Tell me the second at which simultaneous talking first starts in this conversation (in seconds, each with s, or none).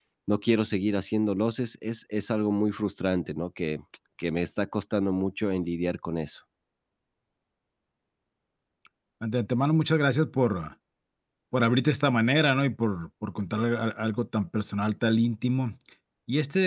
none